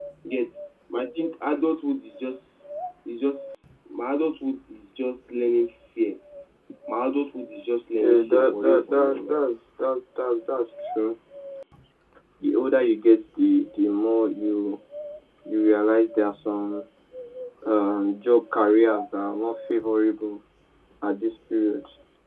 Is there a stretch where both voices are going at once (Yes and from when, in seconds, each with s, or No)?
Yes, from 8.0 s